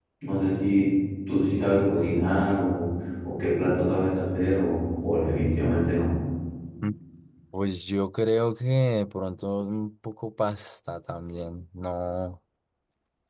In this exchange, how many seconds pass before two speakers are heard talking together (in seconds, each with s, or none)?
none